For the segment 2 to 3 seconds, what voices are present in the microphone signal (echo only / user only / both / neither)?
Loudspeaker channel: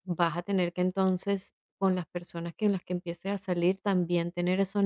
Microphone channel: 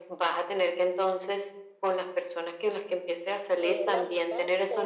echo only